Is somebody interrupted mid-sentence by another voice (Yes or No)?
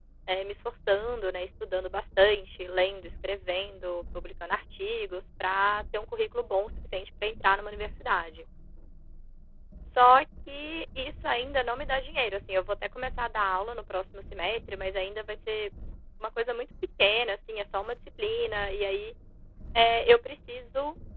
No